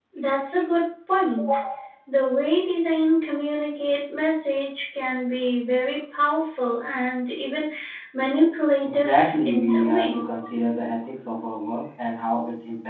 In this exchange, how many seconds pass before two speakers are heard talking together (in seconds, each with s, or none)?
8.8 s